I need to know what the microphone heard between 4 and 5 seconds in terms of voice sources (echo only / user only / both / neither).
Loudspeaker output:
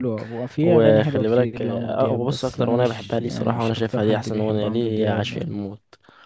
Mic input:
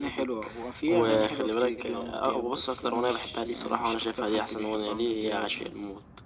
echo only